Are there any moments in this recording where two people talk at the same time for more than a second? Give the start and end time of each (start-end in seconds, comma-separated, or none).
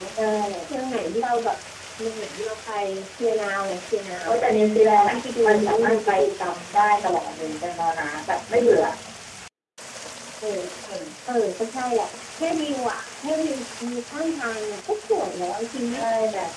5.1-6.9